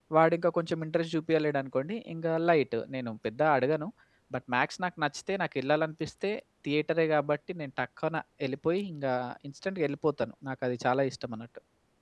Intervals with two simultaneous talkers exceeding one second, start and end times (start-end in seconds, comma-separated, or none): none